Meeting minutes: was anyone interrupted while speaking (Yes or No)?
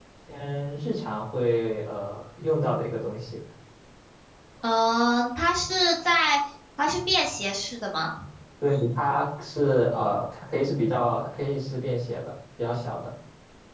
No